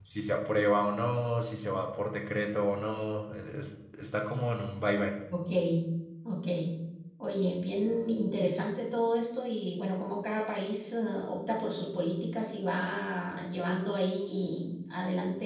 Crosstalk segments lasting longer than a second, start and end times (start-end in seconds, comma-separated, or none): none